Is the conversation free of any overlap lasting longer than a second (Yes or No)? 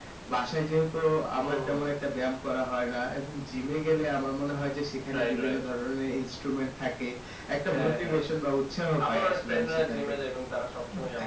No